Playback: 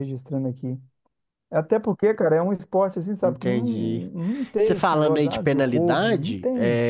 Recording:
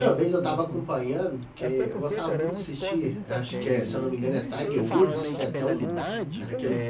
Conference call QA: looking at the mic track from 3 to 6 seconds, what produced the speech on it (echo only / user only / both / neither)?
both